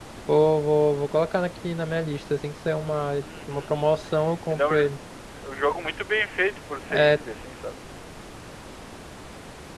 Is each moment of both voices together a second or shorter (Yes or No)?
Yes